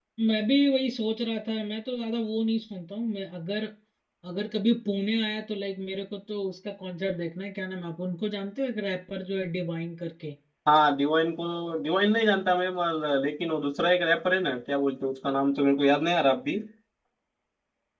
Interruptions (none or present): none